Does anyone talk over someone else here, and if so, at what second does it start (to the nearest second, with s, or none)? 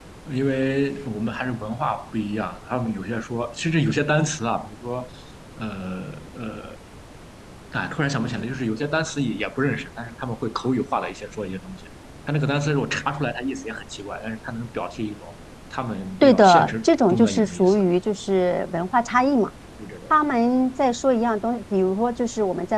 16 s